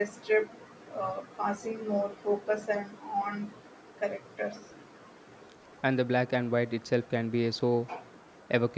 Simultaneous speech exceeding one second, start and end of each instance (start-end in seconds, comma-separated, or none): none